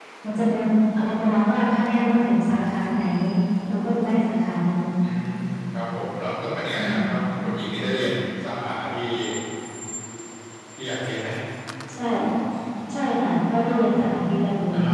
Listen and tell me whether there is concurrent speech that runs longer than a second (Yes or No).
No